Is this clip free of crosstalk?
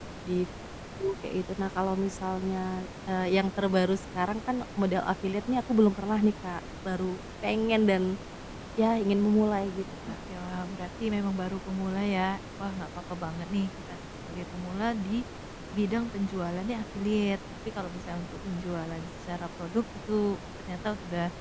Yes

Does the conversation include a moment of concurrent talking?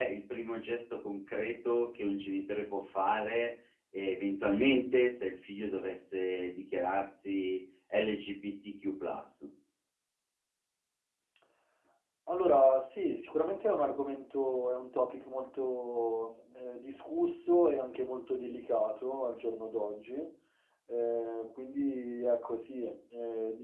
No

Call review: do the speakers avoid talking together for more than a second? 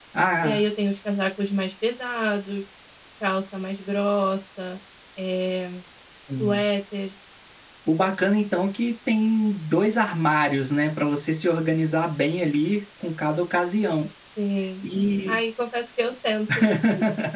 Yes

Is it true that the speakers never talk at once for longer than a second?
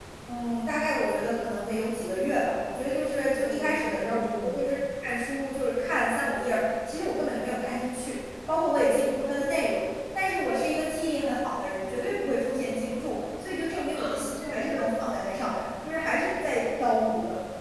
No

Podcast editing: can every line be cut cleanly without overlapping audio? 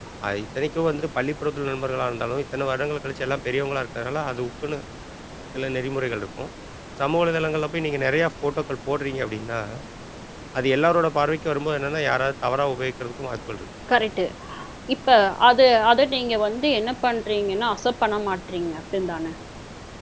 Yes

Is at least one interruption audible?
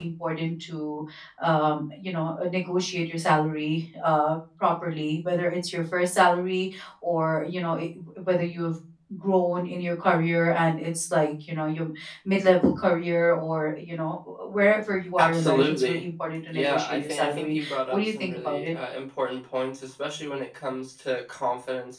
Yes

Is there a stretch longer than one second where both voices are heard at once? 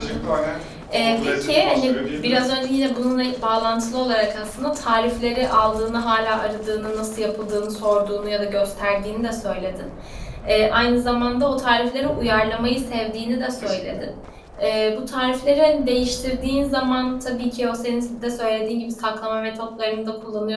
Yes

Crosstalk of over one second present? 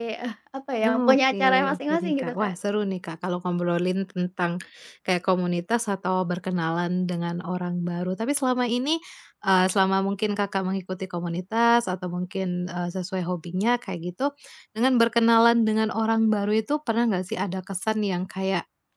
Yes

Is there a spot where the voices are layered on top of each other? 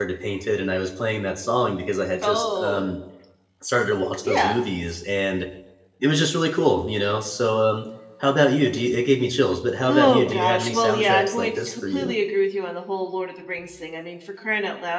Yes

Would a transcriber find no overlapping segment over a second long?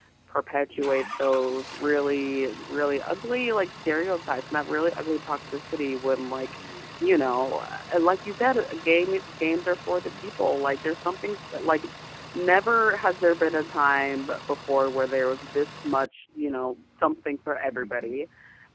Yes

